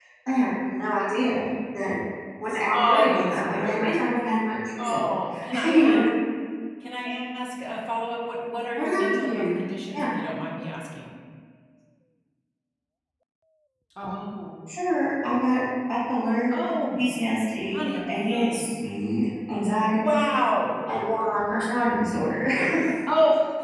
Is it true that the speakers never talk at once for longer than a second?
No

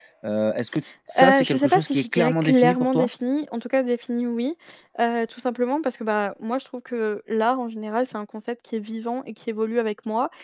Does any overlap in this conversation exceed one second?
Yes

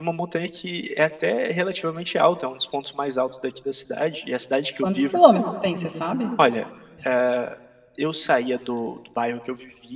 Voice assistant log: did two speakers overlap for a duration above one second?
No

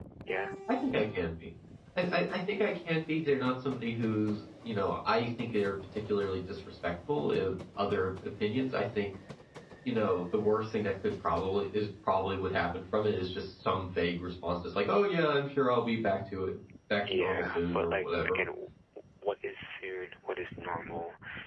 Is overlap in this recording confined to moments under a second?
No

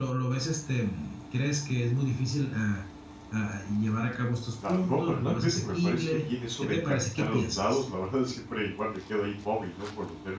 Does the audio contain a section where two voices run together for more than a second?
Yes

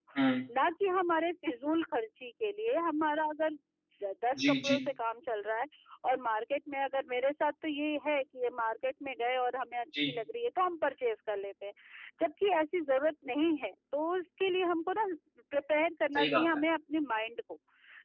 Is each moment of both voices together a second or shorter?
Yes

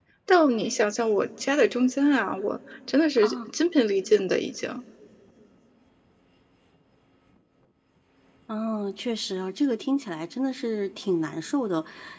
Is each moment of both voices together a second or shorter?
Yes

